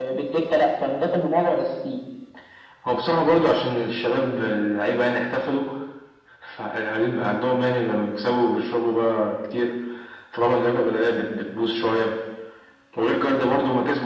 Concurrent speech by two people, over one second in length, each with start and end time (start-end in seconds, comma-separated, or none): none